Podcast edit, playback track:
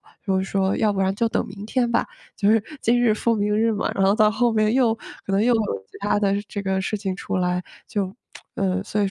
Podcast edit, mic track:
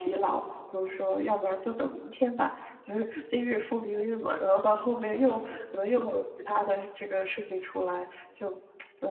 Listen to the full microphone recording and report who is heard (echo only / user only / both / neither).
echo only